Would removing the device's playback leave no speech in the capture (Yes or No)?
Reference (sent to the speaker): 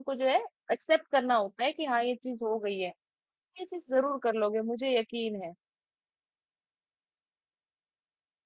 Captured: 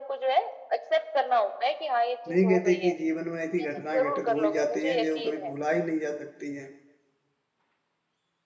No